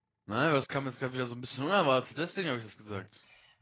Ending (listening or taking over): taking over